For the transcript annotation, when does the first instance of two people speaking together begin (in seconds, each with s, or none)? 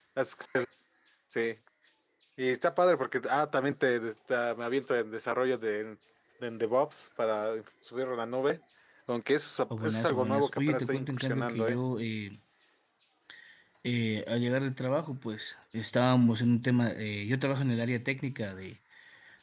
9.8 s